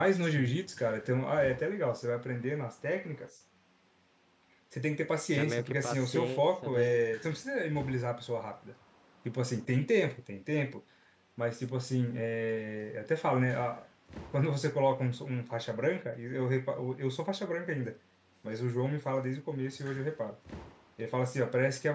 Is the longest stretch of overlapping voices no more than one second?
No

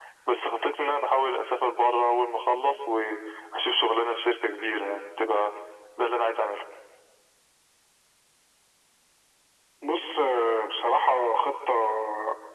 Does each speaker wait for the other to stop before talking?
Yes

